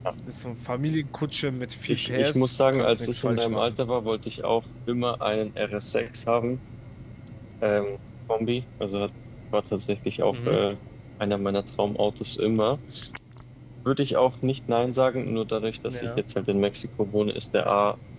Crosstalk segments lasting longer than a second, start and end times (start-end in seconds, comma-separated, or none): 1.9-3.7